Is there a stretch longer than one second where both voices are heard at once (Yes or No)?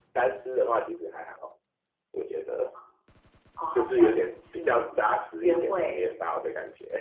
Yes